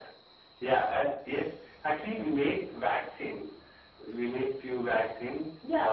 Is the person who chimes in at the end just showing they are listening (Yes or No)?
No